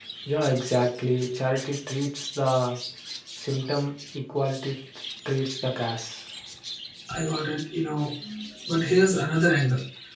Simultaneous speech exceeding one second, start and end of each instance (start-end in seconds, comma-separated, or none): none